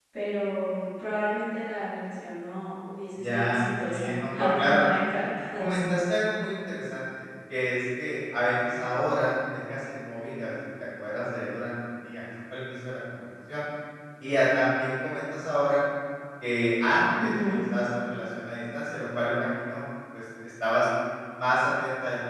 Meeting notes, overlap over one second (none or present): present